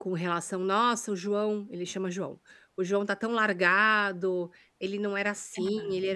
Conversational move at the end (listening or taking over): listening